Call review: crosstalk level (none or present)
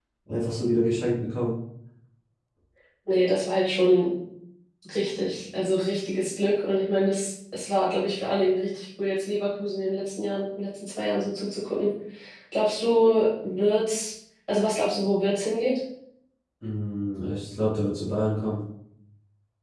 none